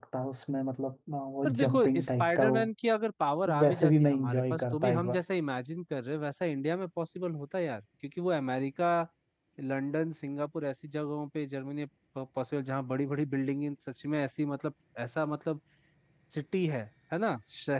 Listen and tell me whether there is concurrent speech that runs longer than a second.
Yes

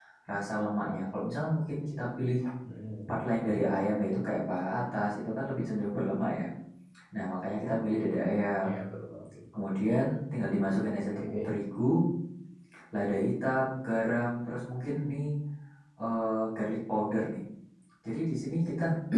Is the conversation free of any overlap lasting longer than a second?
Yes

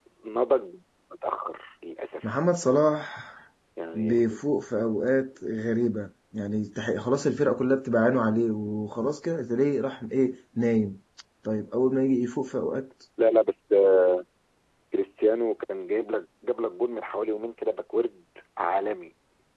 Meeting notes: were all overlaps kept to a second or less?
Yes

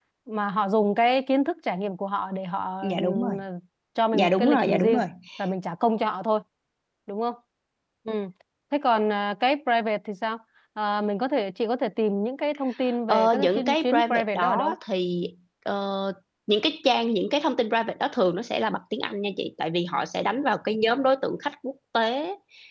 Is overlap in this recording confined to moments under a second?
No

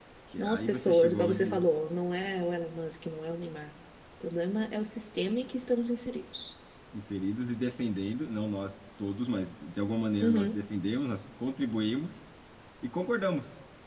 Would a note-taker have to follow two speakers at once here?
Yes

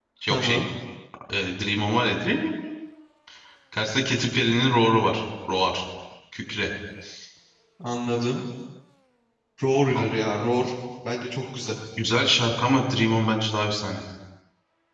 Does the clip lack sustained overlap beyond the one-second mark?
Yes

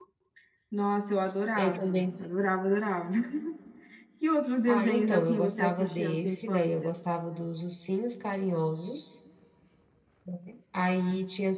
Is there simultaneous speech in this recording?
Yes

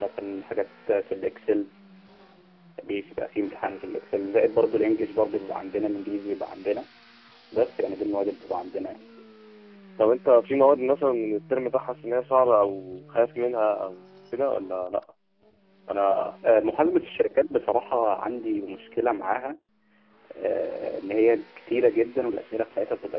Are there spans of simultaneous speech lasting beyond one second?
No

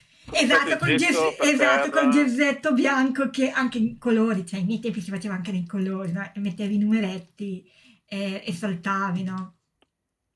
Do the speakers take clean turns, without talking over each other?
No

